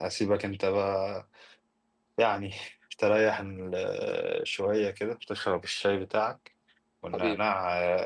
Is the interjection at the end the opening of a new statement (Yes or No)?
No